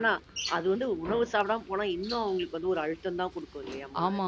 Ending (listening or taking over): taking over